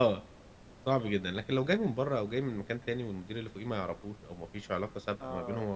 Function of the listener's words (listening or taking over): listening